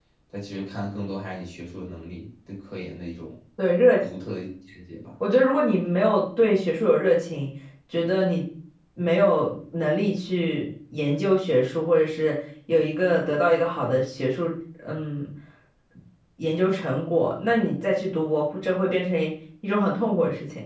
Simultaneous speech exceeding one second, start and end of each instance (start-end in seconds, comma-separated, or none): none